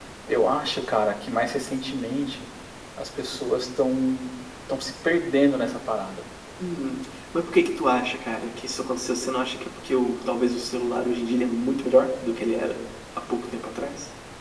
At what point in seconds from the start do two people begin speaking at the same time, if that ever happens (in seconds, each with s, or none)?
none